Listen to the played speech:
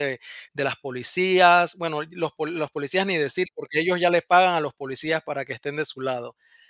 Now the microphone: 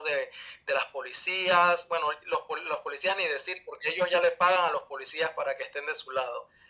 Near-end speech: none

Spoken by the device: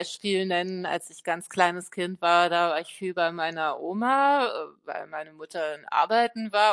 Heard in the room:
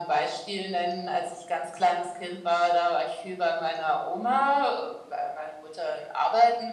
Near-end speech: none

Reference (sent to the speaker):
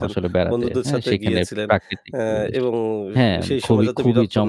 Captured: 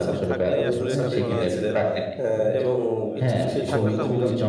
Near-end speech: present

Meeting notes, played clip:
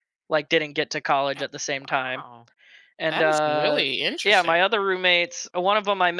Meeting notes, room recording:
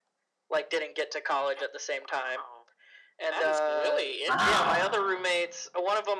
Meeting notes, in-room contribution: present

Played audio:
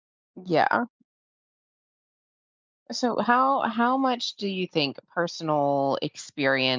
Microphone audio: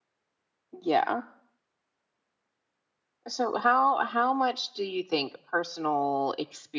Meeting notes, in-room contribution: none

